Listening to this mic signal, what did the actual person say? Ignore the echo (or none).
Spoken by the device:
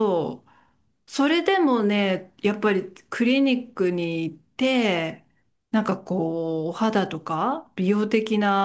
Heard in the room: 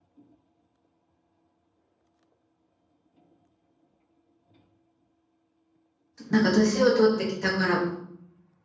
なんか年を取ってきたから、